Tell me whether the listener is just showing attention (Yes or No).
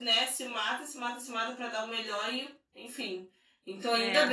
Yes